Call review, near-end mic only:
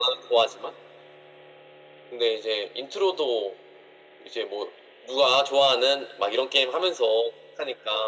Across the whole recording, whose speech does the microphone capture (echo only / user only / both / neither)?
echo only